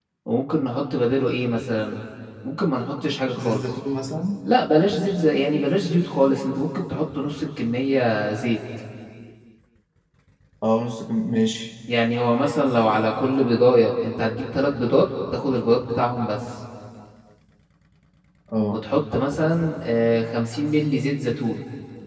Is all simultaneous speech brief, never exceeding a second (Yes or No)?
Yes